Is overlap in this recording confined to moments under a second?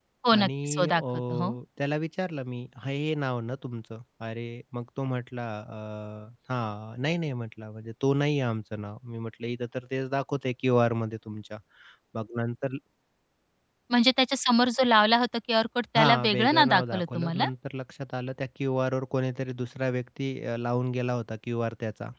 No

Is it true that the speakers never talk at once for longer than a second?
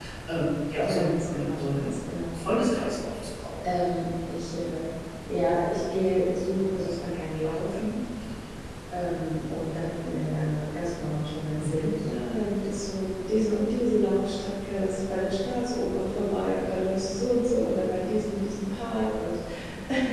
No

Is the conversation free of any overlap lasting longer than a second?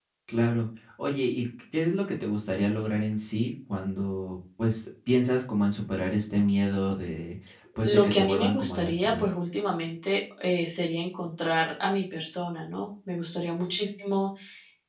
No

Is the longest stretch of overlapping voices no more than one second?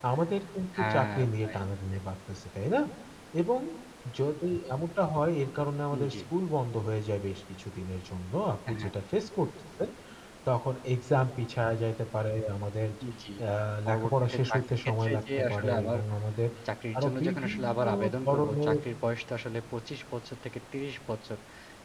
No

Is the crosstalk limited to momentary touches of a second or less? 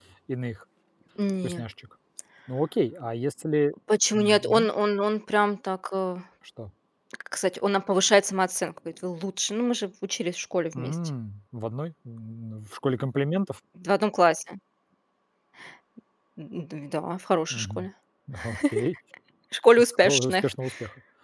Yes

